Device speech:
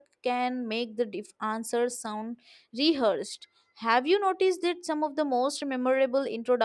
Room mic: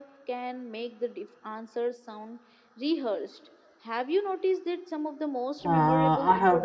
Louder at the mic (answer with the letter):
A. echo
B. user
B